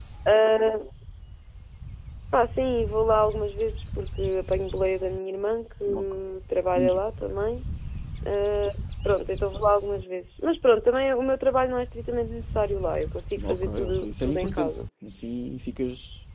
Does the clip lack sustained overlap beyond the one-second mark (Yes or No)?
No